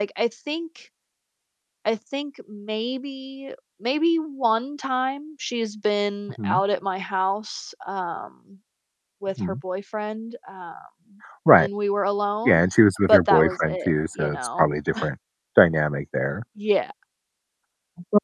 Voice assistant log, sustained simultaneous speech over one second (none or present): present